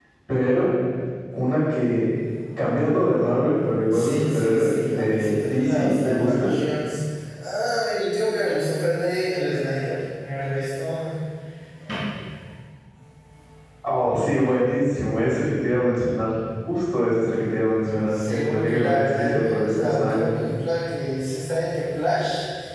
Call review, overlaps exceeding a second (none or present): present